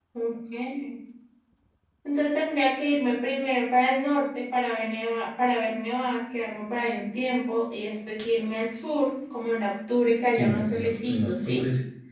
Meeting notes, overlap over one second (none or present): present